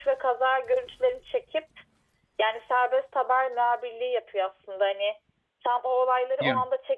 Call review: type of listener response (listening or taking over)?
listening